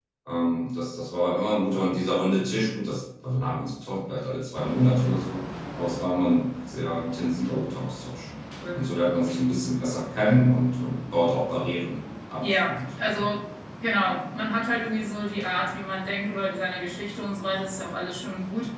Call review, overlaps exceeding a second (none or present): none